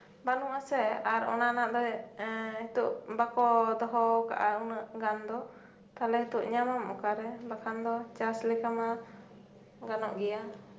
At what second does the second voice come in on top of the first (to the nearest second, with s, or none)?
none